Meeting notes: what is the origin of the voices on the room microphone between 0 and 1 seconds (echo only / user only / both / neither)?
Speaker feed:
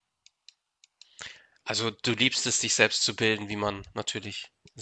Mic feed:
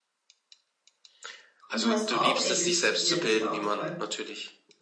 neither